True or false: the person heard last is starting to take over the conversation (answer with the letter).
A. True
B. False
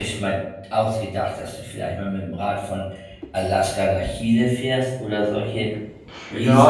A